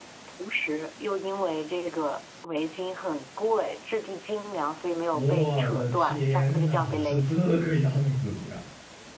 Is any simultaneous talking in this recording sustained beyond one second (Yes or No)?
Yes